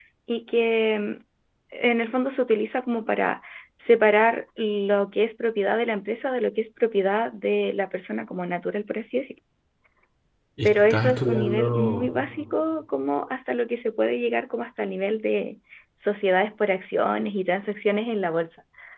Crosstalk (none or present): present